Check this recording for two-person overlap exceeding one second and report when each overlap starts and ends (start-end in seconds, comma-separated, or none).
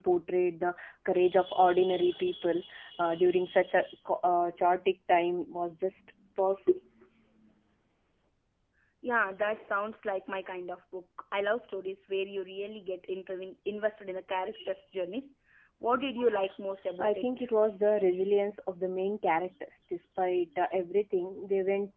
none